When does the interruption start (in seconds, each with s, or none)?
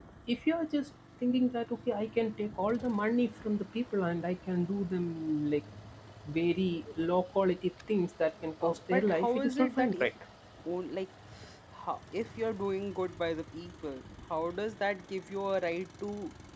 8.6 s